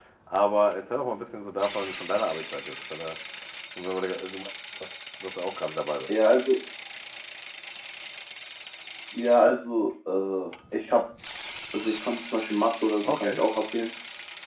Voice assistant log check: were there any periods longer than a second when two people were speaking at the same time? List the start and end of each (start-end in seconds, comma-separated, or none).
none